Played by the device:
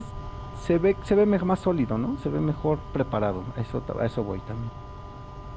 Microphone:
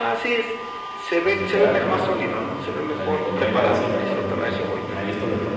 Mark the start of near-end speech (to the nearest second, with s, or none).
1 s